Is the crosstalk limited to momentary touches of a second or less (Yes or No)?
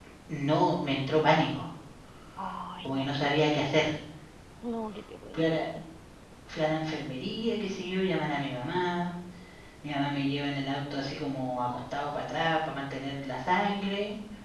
Yes